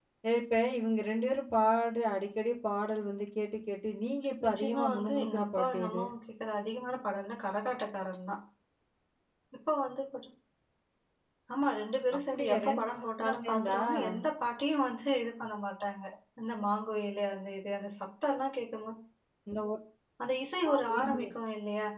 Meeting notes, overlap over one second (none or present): present